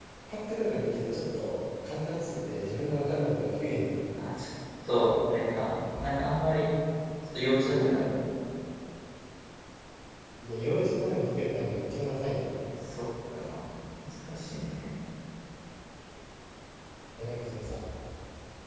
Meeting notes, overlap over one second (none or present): none